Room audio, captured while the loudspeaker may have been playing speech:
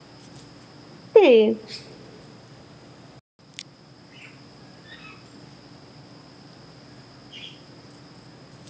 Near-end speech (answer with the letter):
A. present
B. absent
A